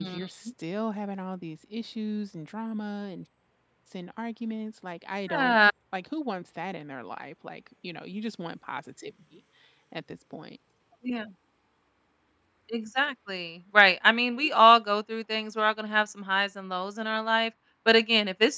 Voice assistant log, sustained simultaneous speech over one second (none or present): none